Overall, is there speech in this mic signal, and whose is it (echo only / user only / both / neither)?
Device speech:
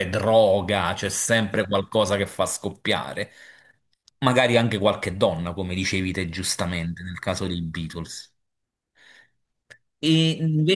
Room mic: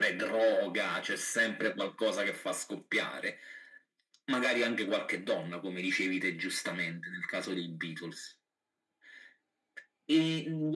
echo only